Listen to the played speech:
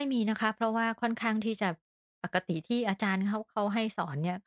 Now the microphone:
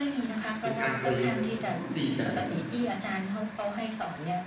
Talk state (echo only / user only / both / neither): both